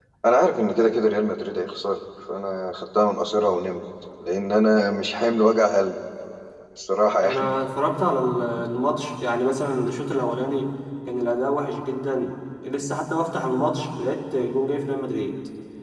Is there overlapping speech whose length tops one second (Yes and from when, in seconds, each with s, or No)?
No